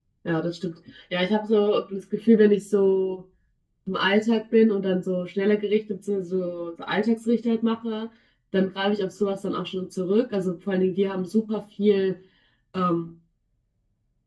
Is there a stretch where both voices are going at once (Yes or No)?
No